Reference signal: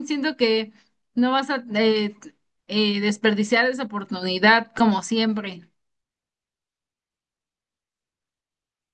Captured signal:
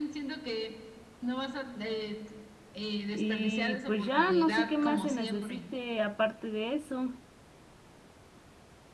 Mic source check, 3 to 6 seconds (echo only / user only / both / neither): both